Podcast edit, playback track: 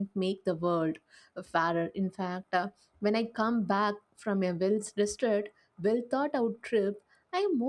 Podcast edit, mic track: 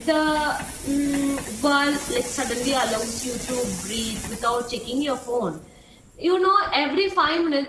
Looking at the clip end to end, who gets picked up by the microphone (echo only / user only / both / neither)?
user only